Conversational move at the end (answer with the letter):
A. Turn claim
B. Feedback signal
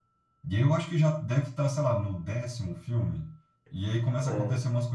B